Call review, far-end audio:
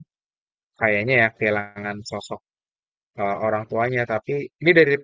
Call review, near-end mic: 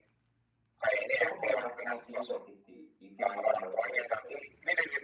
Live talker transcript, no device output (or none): cukup menguras emosi juga sih di di film itu menurutku kayak gitu.